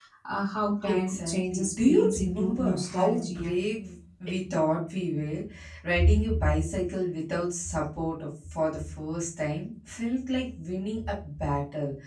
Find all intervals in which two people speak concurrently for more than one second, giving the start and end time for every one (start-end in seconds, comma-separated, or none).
0.9-3.6